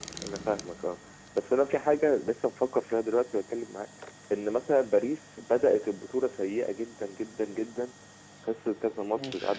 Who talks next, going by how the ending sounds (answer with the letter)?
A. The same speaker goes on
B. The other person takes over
A